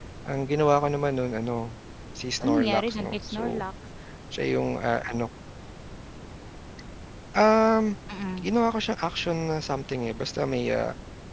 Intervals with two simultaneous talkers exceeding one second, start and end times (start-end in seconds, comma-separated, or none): 2.4-3.6